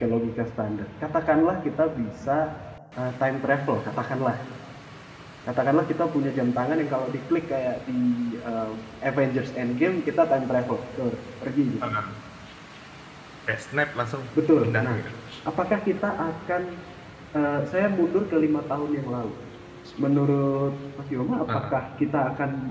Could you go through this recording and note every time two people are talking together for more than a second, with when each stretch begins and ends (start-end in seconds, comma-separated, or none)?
none